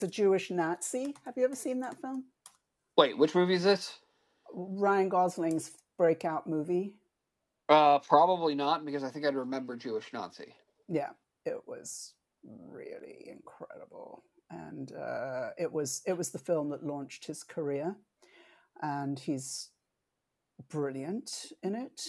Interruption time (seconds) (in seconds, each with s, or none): none